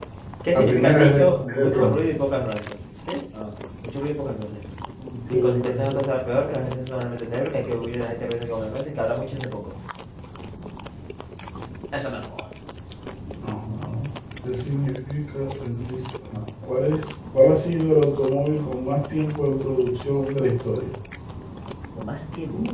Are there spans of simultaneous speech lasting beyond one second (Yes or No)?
Yes